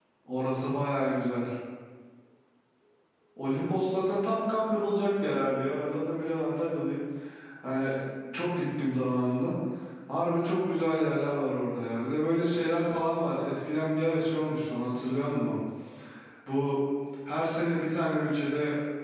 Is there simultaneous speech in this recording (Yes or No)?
No